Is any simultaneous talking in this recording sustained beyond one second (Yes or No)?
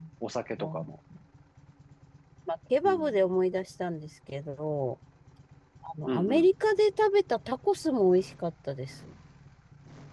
No